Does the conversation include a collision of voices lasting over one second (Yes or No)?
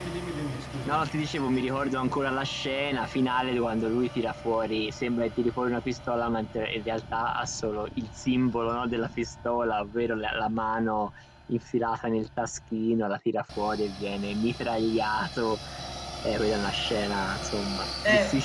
No